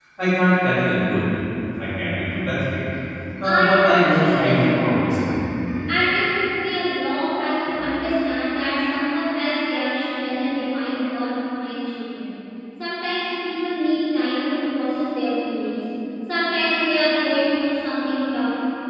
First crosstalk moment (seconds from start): 3.4 s

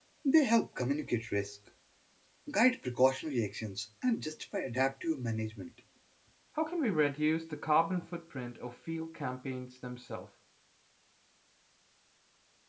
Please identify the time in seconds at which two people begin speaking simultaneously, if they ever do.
none

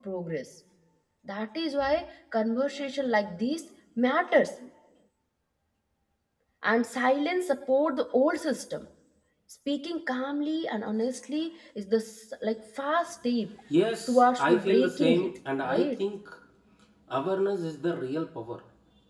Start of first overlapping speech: 14.1 s

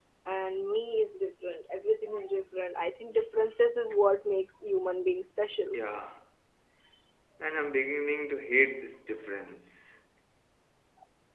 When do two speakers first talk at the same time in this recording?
none

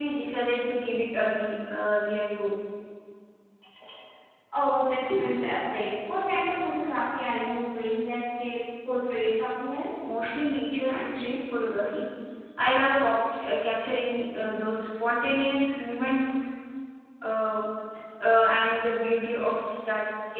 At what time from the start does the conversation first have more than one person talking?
none

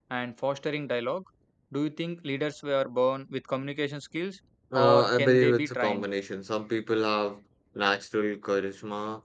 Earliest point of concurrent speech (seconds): 4.7 s

